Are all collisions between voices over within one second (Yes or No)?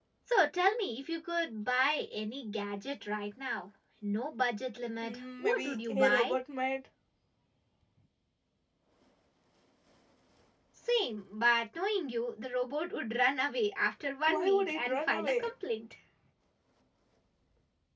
No